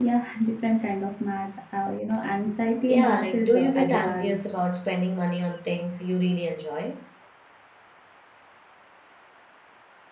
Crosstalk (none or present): present